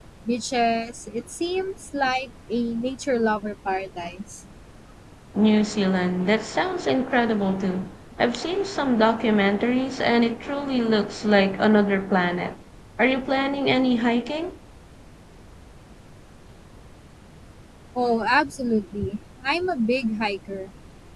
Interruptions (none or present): none